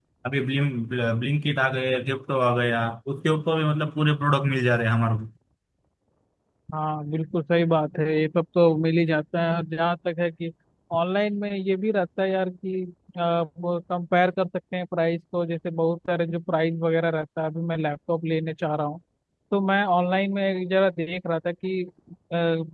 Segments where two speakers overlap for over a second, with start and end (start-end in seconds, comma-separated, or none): none